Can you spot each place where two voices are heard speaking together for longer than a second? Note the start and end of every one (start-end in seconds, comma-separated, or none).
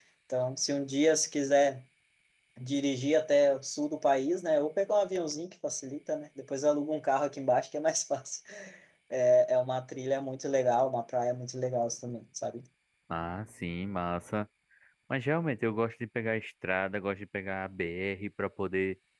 none